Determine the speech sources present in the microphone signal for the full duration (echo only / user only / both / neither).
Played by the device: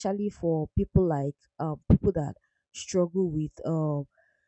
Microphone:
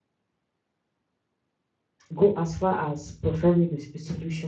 user only